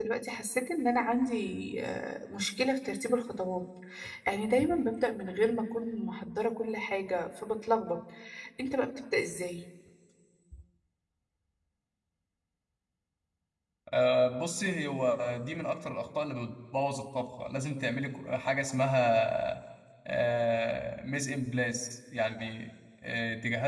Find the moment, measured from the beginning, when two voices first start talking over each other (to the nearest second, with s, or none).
none